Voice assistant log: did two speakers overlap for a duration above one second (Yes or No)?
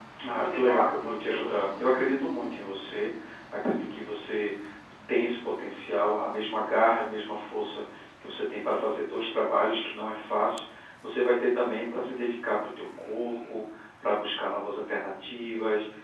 Yes